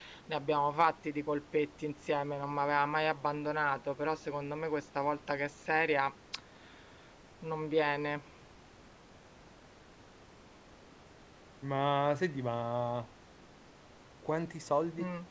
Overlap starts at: none

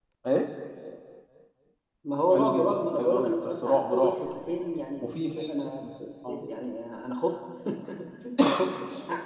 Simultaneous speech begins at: 2.3 s

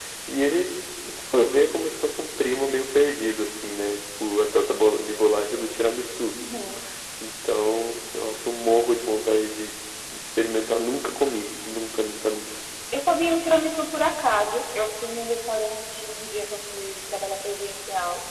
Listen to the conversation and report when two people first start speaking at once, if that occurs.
none

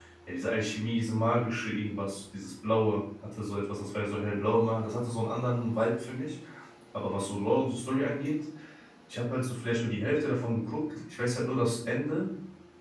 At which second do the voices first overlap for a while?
none

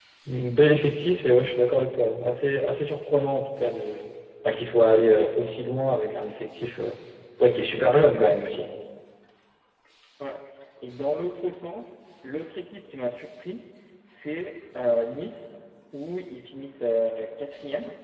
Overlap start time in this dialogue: none

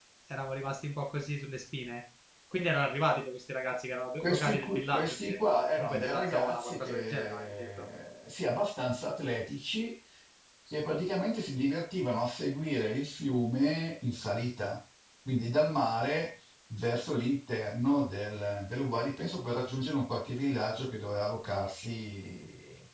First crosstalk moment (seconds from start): 4.2 s

